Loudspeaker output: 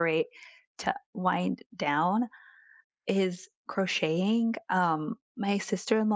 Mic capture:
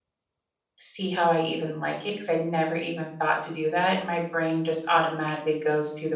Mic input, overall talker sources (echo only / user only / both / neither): user only